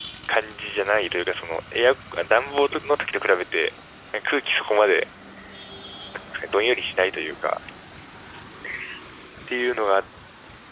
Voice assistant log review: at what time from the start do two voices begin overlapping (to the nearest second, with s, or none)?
none